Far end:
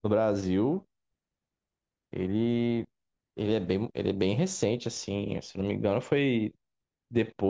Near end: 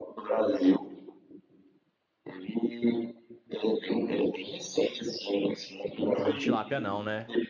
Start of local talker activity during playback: 6.1 s

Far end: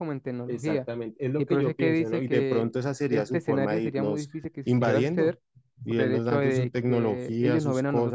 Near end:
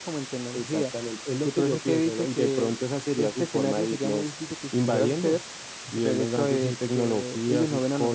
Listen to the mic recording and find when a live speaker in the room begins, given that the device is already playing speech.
none

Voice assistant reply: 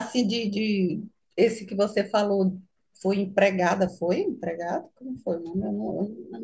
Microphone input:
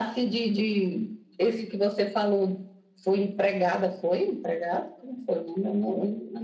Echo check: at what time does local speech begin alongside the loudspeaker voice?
none

